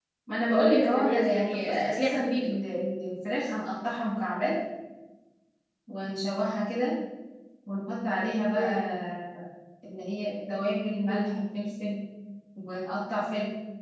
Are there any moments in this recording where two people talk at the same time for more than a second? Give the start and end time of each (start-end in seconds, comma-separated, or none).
0.5-2.4